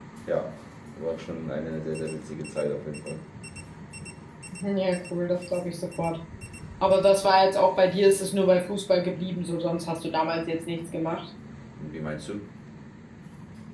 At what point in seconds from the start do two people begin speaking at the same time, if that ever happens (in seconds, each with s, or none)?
none